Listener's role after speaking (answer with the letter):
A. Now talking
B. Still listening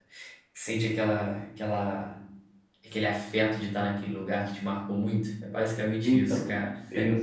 A